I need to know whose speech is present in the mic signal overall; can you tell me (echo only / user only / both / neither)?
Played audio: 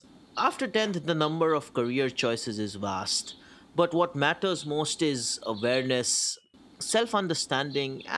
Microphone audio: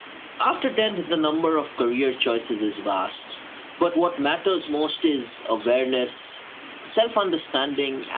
echo only